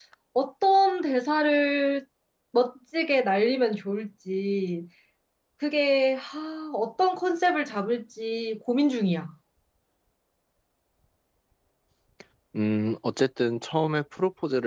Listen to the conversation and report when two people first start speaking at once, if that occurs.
none

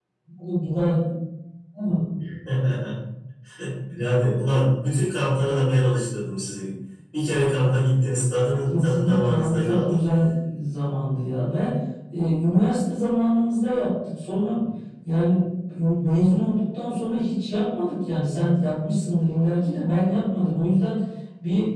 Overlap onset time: 9 s

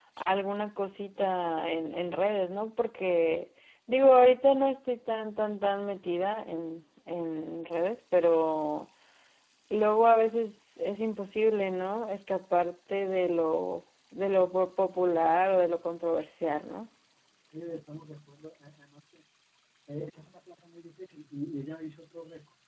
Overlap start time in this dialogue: none

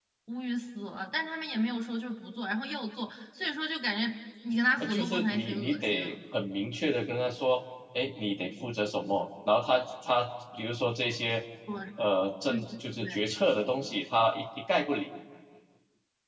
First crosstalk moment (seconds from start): 5 s

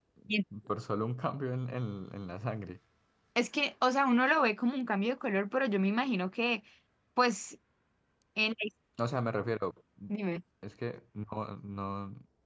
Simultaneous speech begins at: none

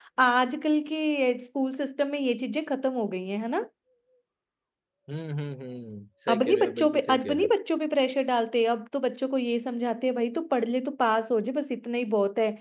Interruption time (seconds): 6 s

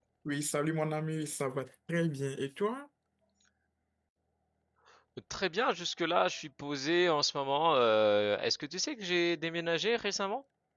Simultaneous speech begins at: none

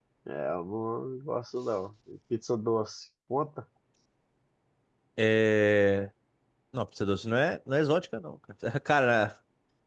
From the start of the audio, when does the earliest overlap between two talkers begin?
none

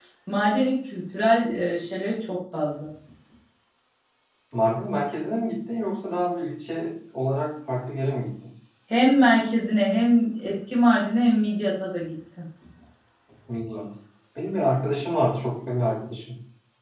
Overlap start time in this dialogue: none

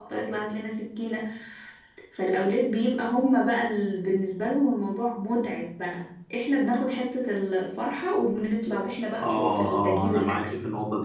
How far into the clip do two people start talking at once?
9 s

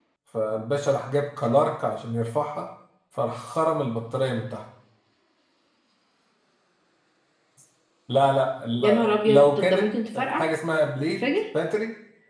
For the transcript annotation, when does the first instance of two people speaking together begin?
9 s

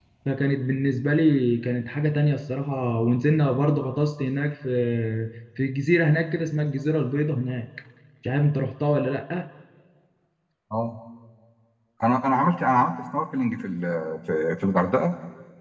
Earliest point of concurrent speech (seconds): none

